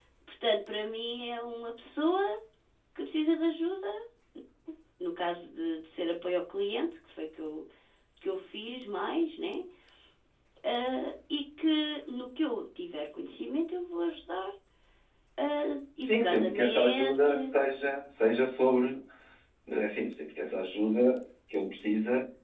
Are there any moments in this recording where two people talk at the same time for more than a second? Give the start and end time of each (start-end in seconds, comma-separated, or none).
16.0-17.5